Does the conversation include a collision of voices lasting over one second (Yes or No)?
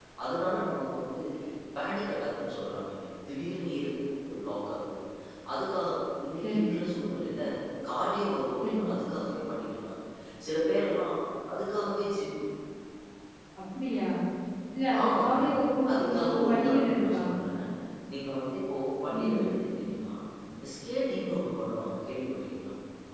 Yes